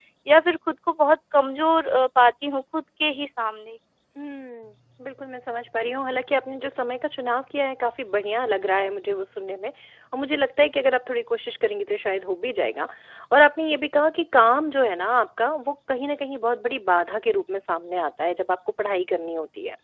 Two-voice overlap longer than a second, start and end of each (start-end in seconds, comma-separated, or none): none